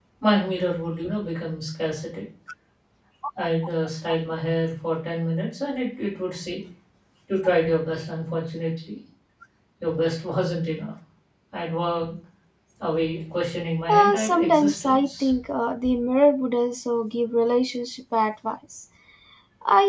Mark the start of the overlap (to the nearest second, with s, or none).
14 s